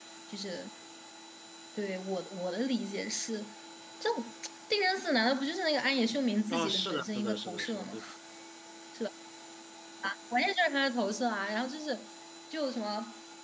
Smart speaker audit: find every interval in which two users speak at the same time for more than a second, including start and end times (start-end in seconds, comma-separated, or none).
6.5-8.0